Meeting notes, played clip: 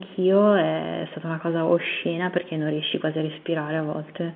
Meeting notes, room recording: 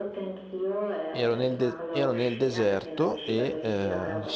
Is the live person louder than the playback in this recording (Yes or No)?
Yes